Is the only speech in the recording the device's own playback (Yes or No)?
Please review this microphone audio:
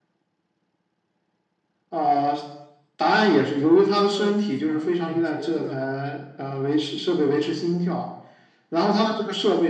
No